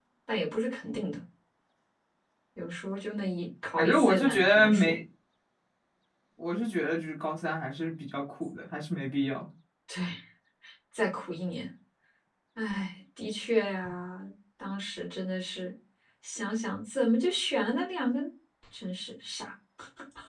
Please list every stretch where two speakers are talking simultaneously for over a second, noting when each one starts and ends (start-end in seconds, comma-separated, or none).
3.8-5.0